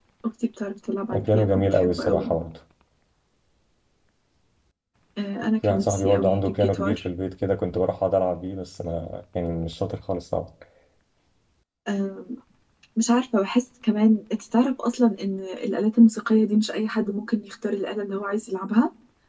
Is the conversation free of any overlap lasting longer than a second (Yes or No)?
No